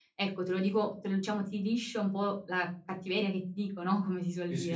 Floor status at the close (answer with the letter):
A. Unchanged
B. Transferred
B